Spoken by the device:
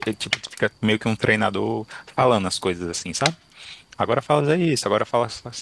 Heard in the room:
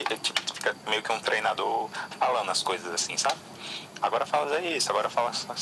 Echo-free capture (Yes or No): No